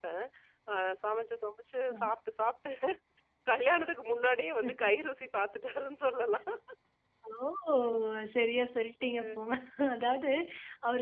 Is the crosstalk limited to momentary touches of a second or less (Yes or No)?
Yes